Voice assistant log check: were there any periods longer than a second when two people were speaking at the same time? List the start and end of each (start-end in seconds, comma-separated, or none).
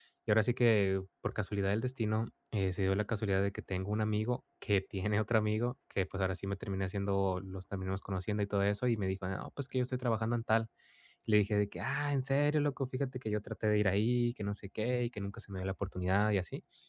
none